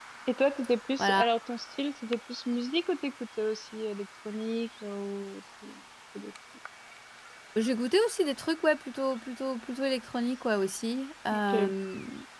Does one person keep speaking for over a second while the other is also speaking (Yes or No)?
No